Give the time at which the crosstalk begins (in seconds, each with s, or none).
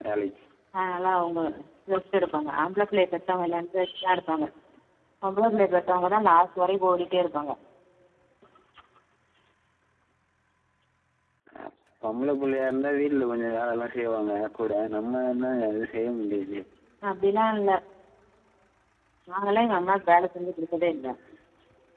none